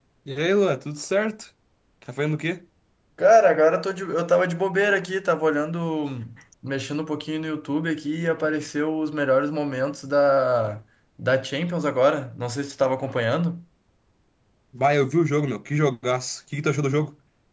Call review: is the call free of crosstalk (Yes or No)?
Yes